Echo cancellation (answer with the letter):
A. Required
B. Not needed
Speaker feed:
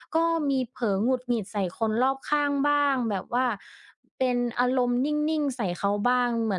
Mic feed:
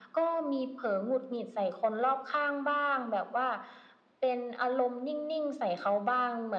A